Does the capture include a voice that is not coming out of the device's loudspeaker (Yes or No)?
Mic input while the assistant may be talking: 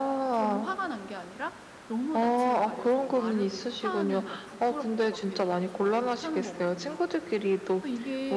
No